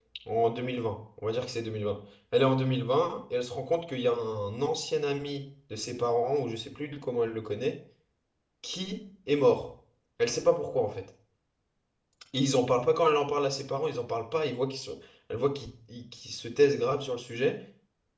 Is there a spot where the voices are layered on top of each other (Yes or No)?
No